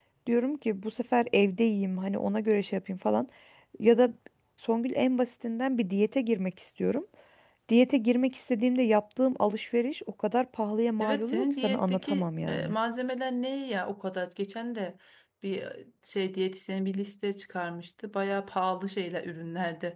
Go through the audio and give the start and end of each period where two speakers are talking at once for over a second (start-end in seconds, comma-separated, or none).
11.0-12.7